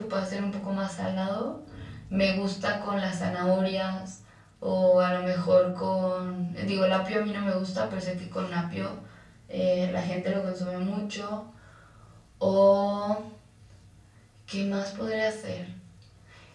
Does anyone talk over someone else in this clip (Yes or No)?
No